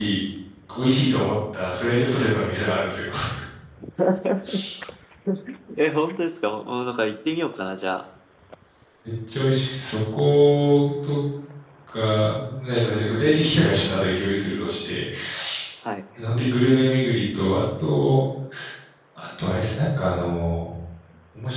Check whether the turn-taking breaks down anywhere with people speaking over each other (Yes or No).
No